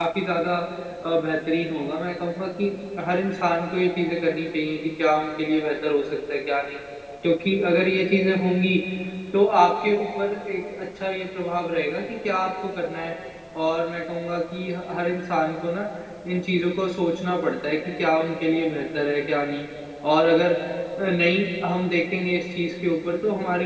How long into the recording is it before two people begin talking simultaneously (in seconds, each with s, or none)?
none